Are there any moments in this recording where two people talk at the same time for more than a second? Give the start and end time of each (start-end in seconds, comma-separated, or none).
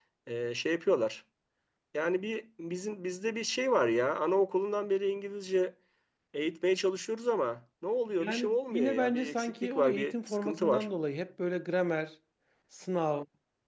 8.2-10.9